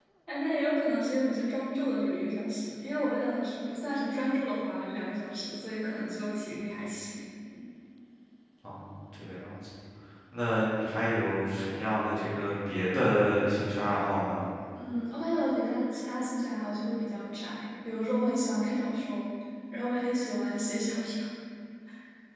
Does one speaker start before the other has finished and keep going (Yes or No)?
No